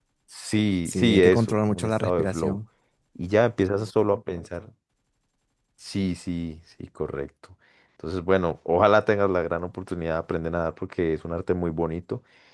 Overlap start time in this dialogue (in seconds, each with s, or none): 0.8 s